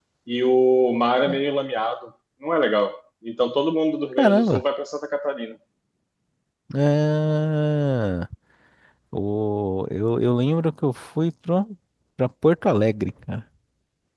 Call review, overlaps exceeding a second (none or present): none